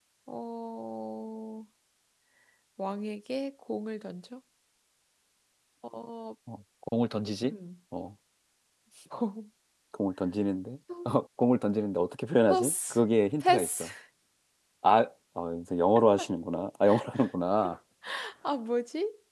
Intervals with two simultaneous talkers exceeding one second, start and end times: none

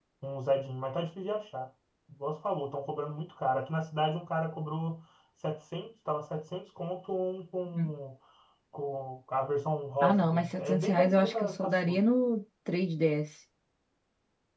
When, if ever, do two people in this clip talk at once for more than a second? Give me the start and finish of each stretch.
10.0-12.0

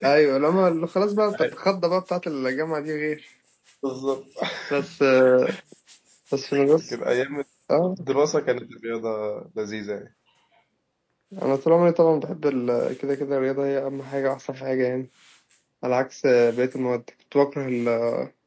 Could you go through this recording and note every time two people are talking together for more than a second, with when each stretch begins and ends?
none

